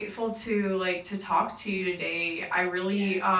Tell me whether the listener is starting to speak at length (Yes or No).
No